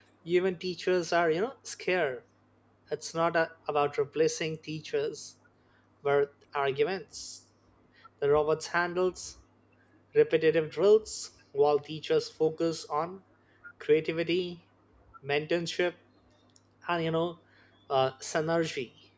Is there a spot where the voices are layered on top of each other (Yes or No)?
No